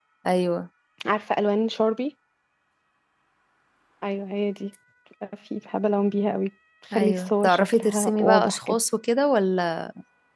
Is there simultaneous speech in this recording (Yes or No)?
Yes